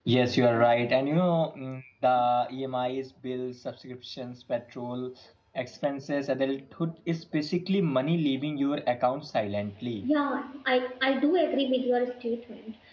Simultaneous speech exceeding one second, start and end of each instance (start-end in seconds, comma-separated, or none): none